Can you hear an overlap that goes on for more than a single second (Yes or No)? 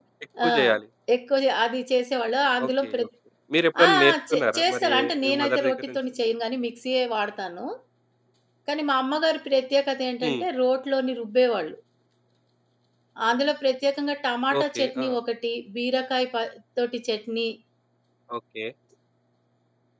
Yes